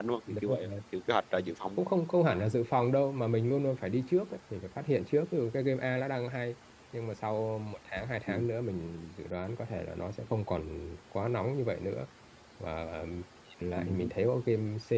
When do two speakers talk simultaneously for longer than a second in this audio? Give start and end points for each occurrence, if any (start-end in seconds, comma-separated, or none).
none